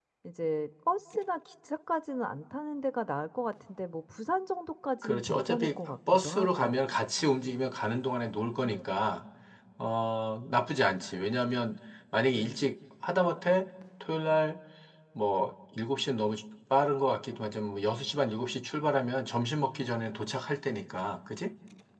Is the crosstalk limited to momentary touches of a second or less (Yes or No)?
No